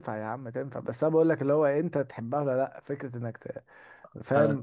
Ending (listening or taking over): listening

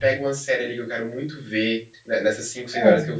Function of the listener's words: listening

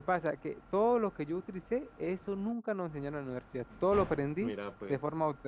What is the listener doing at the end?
listening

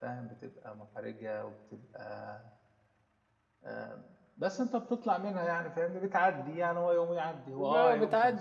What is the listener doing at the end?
taking over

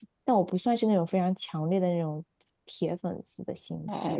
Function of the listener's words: taking over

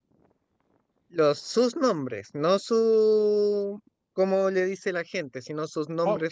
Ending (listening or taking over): taking over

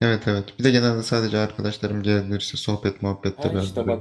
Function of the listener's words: taking over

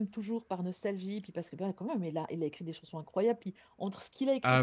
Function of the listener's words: listening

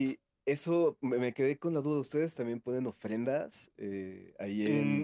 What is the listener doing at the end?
taking over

